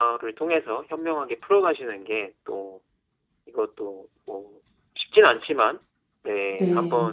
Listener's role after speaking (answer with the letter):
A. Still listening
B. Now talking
A